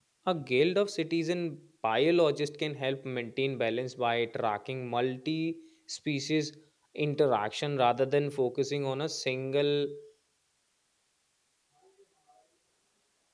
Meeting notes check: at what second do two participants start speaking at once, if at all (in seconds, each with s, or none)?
none